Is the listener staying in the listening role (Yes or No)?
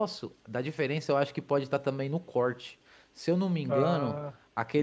Yes